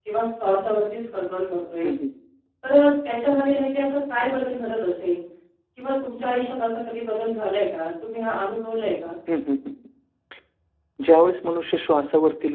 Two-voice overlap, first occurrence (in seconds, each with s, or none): none